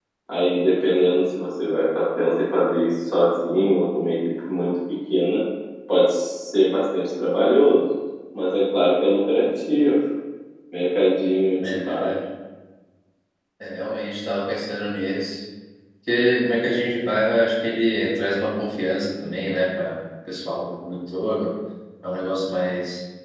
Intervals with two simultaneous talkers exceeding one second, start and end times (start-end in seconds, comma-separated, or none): none